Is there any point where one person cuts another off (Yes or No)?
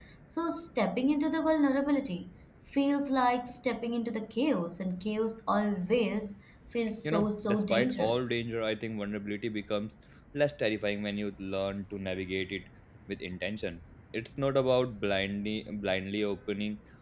Yes